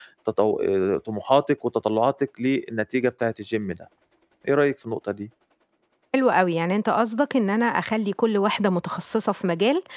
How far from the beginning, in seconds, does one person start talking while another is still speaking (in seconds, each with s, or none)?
none